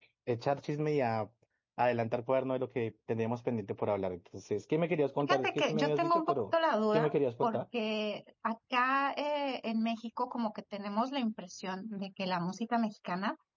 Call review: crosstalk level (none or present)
present